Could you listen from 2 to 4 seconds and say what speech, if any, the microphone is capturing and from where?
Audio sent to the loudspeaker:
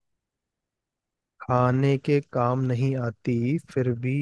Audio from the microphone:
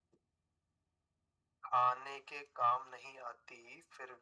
echo only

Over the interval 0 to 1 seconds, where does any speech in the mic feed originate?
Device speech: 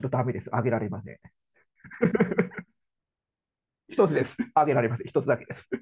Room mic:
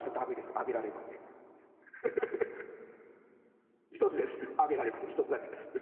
echo only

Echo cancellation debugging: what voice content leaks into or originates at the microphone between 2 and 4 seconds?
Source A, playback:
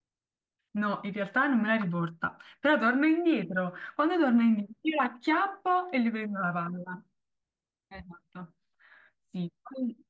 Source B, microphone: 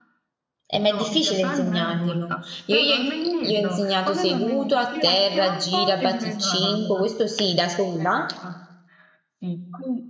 both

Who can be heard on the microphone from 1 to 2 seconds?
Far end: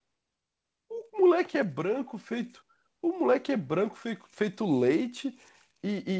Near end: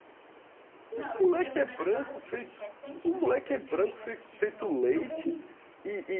both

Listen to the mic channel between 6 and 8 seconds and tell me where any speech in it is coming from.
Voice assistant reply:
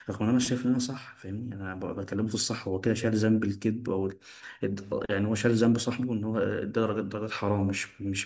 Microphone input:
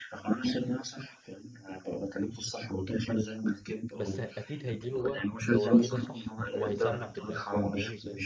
both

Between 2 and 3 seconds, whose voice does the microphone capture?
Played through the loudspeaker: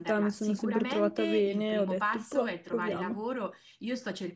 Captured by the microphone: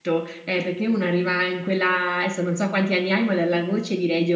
user only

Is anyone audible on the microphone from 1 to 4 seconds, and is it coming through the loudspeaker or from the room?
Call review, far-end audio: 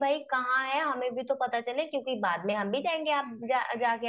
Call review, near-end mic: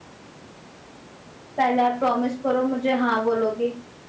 user only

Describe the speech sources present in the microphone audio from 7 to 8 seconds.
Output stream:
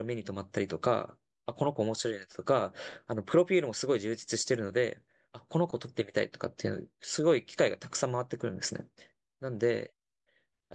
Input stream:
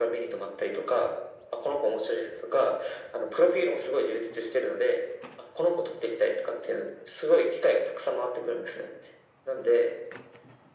echo only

